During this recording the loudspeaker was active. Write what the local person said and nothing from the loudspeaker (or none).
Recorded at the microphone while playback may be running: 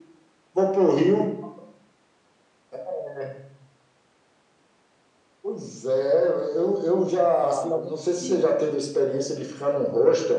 passei algum frio.